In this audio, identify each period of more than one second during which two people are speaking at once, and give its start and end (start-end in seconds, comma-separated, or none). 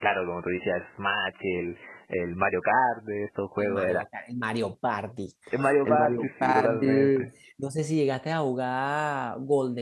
5.8-7.3